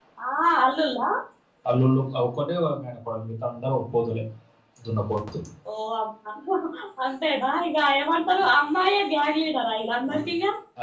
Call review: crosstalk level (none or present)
none